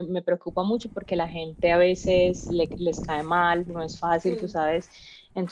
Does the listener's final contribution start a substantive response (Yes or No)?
No